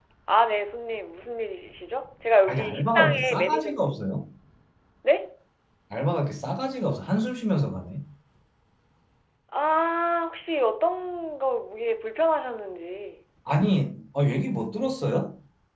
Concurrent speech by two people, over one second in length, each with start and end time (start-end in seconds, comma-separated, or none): 2.5-4.0